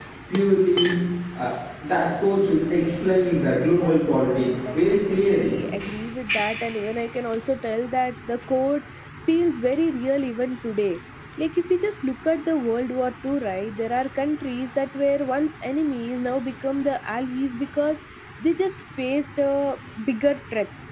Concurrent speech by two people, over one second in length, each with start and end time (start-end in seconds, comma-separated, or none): 3.8-5.5